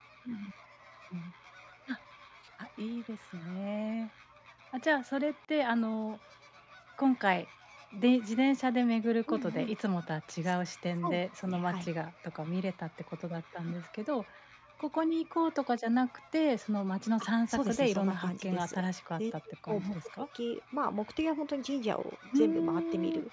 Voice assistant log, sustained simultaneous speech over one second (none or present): present